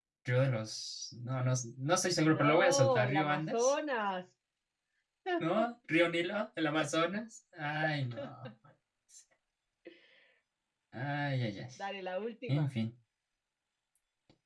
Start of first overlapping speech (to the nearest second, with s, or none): 2 s